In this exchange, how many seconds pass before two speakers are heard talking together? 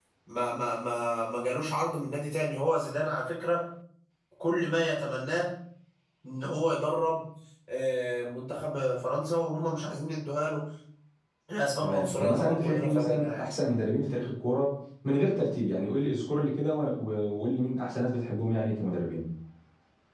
11.8 s

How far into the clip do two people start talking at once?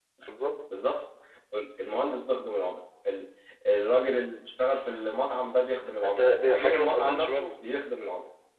6.0 s

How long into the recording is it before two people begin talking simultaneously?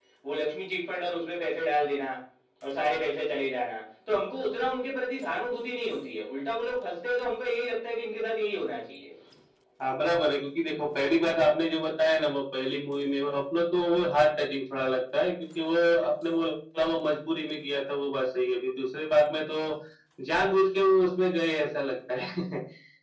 none

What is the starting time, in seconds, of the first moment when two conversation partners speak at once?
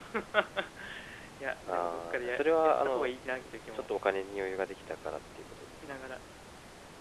1.7 s

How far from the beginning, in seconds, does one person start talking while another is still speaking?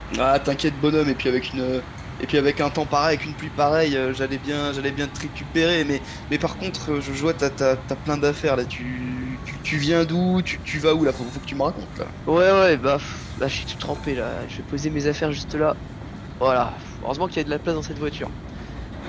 none

